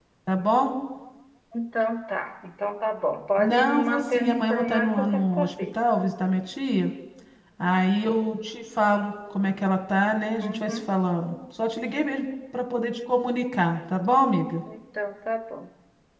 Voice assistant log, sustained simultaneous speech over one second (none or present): present